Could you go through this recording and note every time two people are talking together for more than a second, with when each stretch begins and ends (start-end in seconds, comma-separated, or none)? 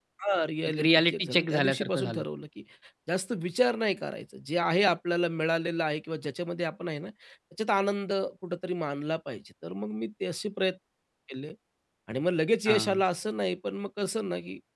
0.7-2.2